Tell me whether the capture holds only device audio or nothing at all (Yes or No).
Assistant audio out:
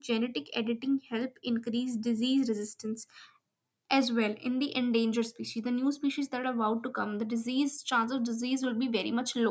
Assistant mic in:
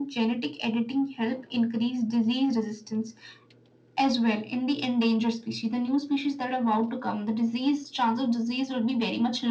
Yes